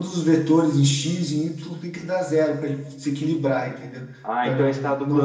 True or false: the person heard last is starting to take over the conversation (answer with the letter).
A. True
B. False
A